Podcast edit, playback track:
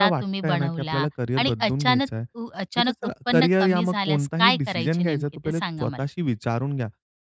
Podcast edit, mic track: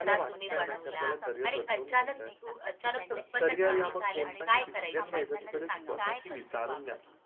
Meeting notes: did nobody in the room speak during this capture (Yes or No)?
No